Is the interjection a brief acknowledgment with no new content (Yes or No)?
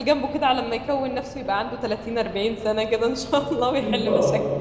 No